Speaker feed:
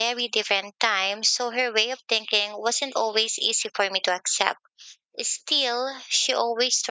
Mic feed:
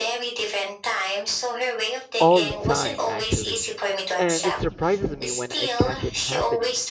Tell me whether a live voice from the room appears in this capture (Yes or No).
Yes